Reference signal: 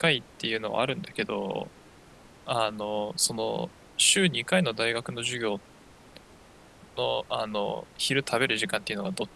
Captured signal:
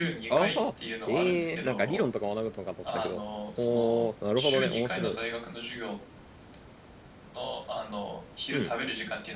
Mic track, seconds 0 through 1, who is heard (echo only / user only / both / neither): both